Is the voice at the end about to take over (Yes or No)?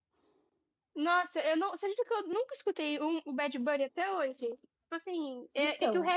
No